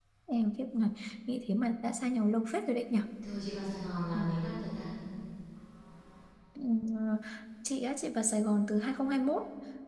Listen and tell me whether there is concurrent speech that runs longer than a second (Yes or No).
No